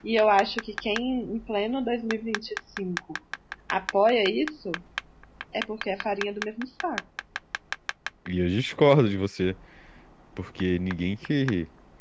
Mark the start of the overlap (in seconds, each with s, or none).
none